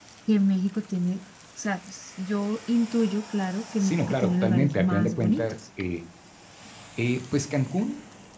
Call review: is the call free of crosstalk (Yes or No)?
No